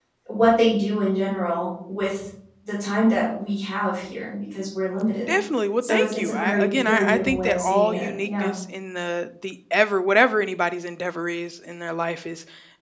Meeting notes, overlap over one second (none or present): present